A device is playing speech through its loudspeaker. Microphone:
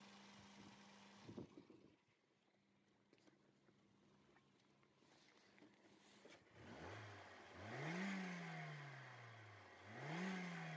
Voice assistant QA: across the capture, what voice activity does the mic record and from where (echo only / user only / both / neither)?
neither